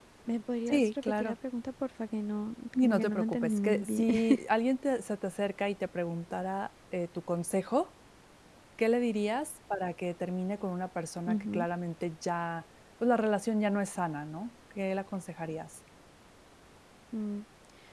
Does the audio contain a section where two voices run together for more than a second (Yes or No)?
Yes